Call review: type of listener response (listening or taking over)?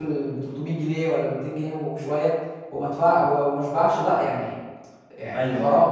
taking over